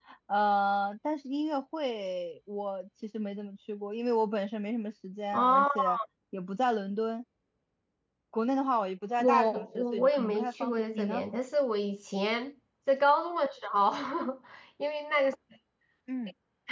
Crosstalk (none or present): present